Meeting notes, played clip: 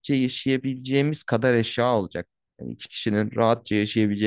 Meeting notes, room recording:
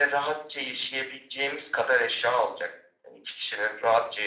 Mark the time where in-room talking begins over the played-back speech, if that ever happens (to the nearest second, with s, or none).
none